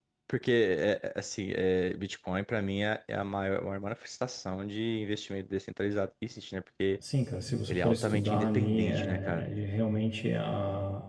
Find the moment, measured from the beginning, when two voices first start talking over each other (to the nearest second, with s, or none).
8 s